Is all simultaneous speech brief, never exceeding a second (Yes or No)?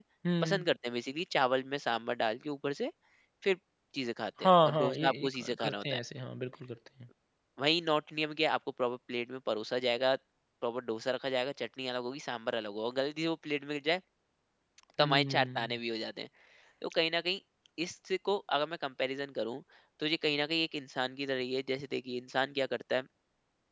No